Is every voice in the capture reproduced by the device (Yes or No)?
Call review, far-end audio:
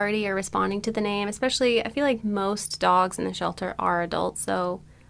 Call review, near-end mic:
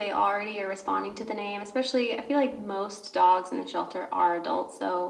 Yes